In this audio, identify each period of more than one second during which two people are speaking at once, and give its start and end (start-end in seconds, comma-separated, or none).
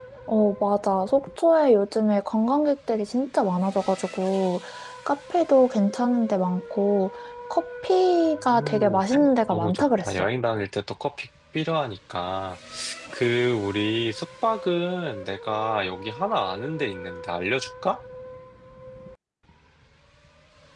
8.4-10.3